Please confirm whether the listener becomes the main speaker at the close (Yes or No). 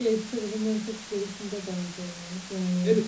Yes